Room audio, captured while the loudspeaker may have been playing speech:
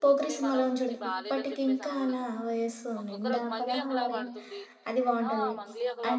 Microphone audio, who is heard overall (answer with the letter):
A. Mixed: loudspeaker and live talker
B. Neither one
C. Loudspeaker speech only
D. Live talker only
A